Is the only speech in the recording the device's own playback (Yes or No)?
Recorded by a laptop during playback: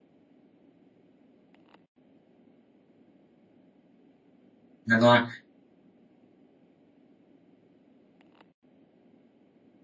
No